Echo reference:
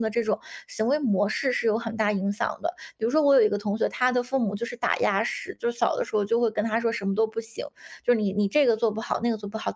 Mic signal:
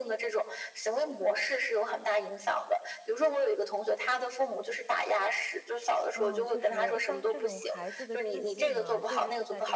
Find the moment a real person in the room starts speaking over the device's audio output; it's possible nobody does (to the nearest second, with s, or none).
6 s